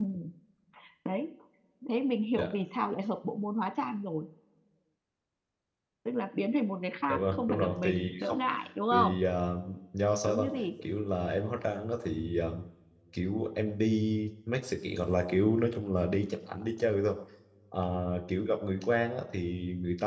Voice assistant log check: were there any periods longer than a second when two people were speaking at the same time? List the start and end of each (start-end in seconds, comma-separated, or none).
7.1-8.4